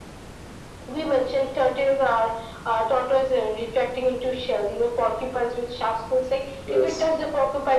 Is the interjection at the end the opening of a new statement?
No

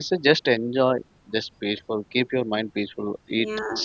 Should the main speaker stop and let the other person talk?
Yes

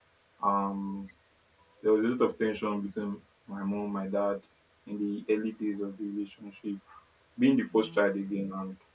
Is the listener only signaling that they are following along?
Yes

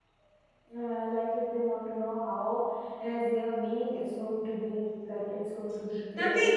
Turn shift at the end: Yes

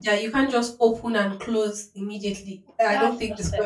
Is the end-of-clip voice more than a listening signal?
Yes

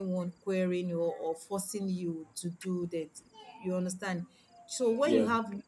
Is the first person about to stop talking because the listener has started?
No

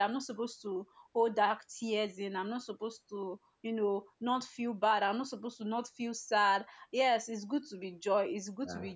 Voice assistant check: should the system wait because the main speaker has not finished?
Yes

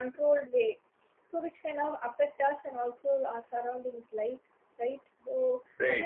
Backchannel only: Yes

